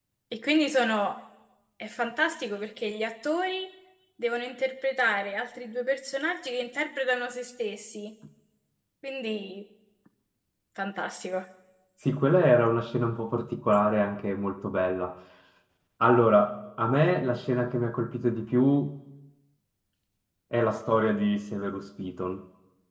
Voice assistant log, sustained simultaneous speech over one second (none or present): none